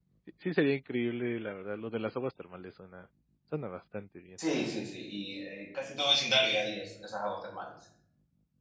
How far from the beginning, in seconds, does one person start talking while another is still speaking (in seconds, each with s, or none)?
none